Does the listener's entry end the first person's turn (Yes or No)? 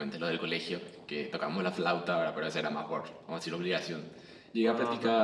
No